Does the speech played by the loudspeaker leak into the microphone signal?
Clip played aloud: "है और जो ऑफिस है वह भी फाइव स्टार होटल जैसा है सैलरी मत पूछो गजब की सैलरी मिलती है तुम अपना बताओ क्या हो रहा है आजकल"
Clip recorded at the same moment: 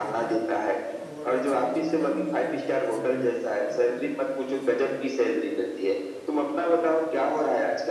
Yes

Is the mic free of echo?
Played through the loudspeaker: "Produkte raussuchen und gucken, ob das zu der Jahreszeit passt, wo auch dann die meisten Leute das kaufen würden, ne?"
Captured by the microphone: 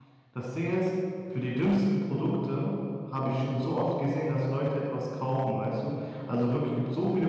Yes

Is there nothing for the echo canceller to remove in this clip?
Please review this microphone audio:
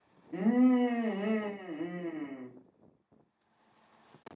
Yes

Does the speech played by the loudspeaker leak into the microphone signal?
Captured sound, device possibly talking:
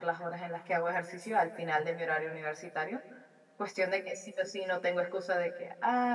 No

